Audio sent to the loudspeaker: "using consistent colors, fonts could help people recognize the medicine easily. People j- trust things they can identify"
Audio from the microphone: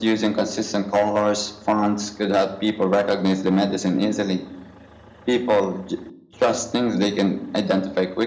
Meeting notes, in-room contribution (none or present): none